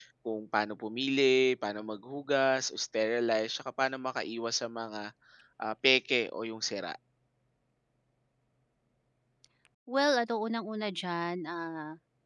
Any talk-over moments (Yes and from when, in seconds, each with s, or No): No